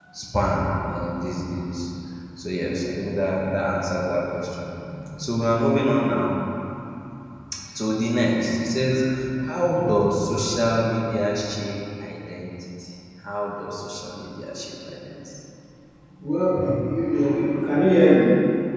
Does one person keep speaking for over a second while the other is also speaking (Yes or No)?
No